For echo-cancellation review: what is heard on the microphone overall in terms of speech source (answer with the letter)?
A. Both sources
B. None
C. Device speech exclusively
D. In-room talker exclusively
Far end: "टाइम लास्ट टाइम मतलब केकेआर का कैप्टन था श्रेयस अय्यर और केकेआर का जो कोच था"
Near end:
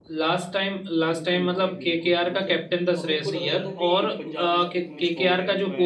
A